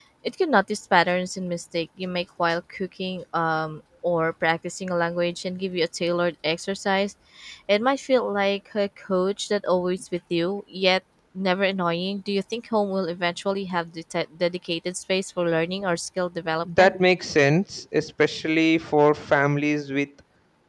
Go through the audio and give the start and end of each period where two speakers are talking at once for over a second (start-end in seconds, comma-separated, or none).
none